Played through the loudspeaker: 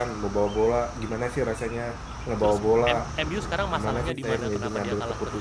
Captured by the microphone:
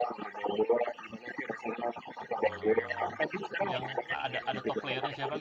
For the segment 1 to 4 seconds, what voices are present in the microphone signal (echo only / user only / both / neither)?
both